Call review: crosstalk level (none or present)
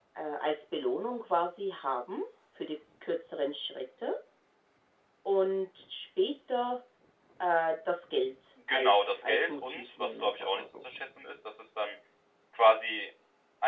present